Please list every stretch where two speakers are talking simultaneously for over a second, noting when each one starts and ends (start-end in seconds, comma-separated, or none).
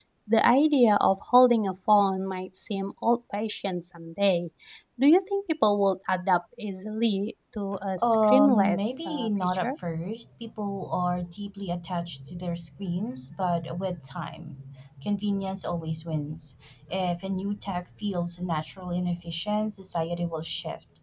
8.0-9.7